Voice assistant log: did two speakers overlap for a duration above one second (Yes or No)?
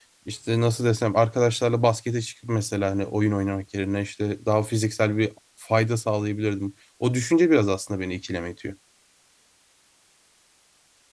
No